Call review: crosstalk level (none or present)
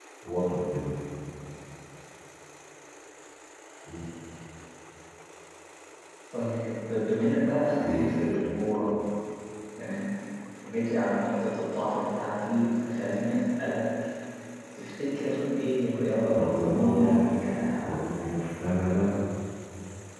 present